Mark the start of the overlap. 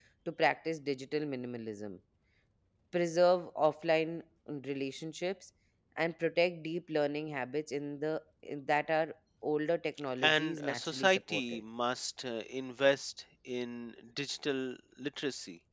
10.2 s

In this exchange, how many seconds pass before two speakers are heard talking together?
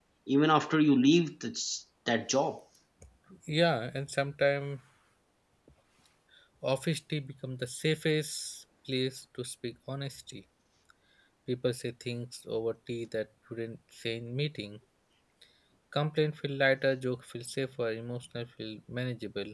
none

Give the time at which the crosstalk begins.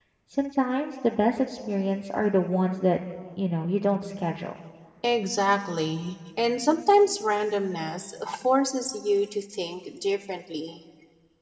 none

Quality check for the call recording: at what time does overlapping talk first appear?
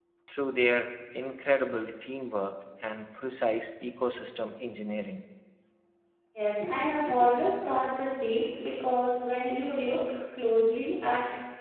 none

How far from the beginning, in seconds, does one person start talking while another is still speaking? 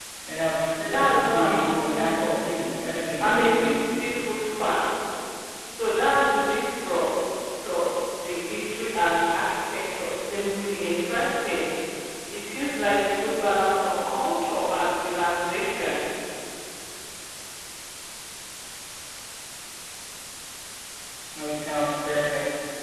0.8 s

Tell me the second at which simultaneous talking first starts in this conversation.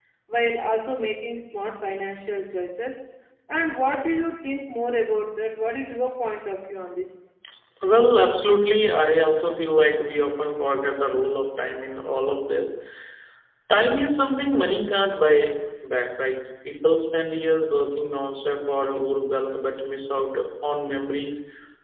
none

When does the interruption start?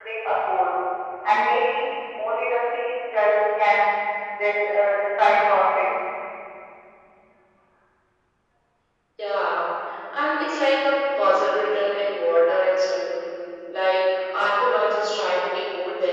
none

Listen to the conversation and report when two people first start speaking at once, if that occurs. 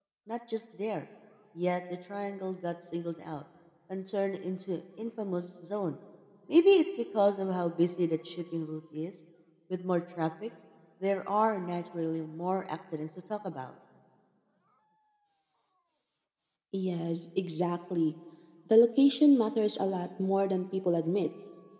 none

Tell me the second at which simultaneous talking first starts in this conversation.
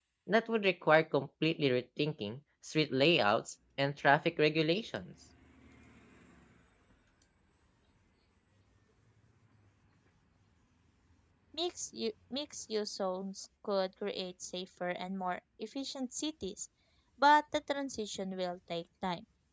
none

